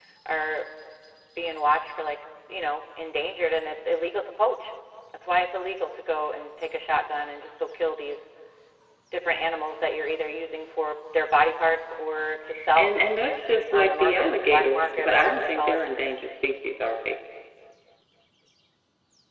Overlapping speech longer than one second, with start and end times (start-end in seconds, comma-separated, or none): 13.7-15.8